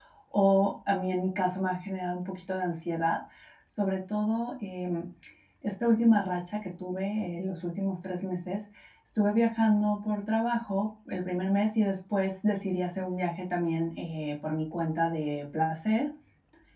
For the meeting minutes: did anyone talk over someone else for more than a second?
No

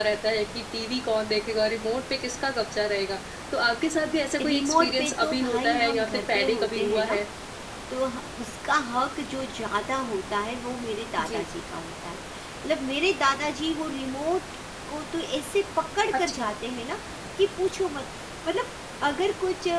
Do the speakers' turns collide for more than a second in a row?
Yes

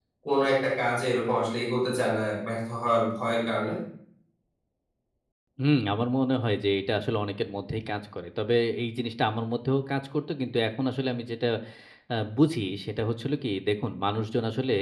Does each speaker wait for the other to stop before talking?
Yes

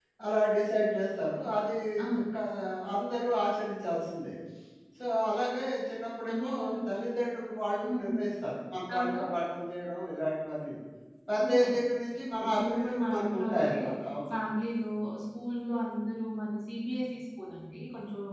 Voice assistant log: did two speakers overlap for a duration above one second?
Yes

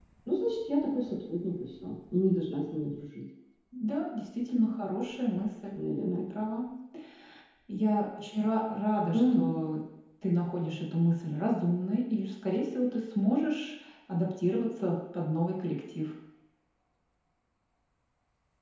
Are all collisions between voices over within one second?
Yes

